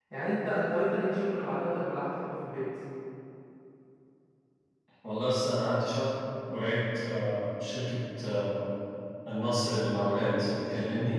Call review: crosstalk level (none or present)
none